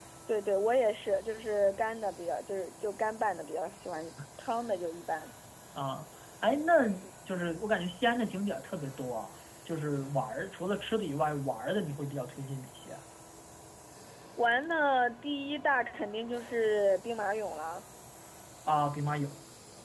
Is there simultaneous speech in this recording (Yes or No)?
No